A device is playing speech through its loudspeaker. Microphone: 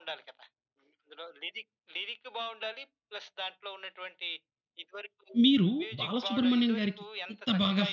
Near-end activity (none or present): present